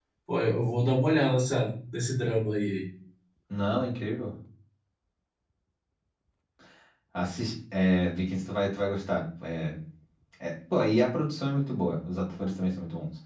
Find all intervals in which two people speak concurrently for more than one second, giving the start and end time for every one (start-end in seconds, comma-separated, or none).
none